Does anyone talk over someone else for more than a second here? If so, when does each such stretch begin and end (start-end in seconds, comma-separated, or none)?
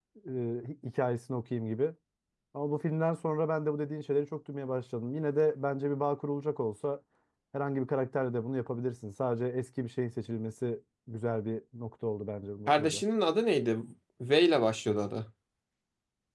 none